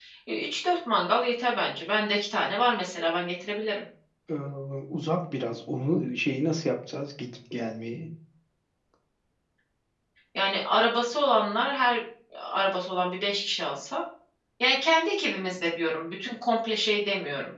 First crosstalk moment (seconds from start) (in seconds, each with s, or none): none